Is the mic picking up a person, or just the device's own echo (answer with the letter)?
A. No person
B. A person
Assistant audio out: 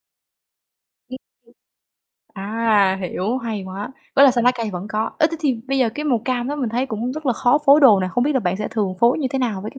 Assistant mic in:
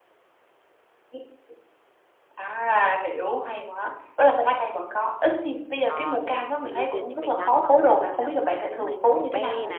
B